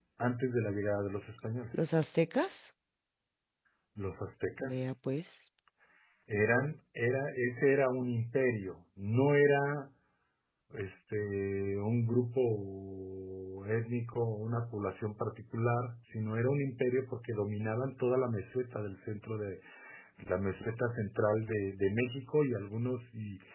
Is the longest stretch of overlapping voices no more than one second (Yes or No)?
Yes